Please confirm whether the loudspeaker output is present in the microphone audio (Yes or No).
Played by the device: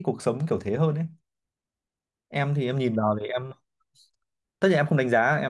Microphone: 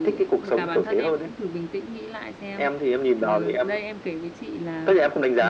Yes